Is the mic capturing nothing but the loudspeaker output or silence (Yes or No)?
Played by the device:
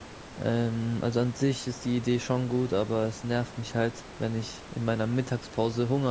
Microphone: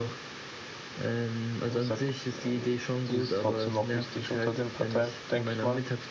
No